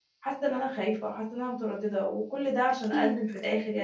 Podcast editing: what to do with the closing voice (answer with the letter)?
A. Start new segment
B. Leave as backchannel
B